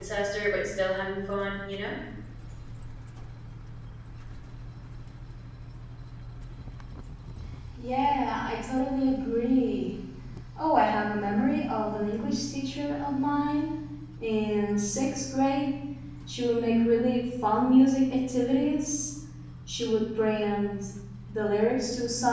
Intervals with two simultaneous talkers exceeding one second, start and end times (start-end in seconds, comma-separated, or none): none